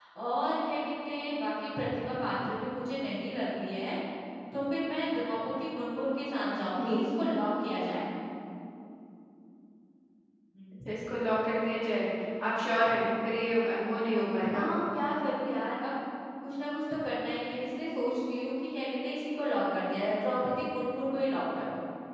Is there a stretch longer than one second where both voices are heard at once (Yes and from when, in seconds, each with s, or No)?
No